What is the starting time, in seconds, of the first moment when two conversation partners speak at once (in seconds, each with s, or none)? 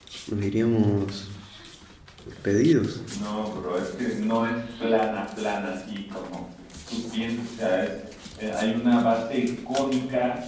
none